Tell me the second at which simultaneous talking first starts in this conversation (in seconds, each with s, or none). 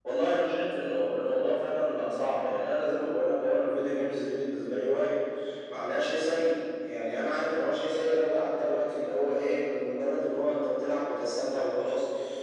none